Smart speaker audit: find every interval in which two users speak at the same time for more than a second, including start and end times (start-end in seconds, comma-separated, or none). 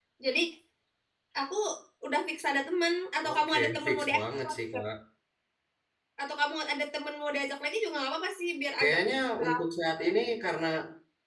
3.3-4.8